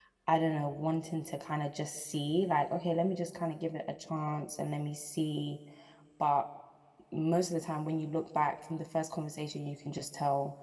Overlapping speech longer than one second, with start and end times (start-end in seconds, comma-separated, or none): none